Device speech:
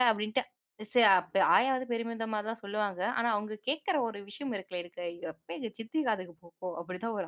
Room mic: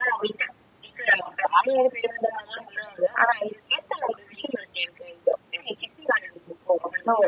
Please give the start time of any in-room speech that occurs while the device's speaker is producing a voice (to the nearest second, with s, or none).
none